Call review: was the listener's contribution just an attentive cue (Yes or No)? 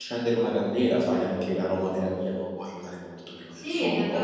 No